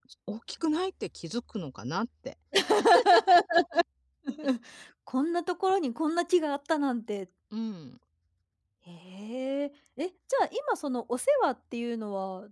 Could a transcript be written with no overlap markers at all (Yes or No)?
Yes